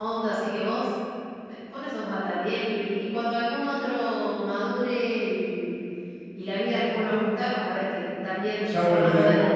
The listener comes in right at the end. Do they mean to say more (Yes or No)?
Yes